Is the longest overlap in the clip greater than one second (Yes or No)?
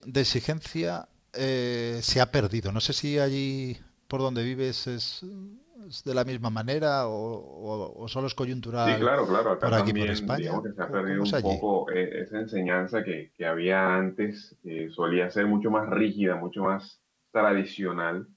Yes